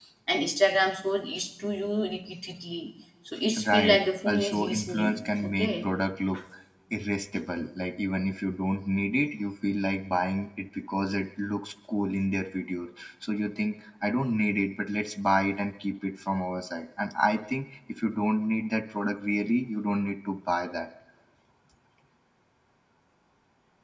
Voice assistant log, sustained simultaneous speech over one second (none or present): present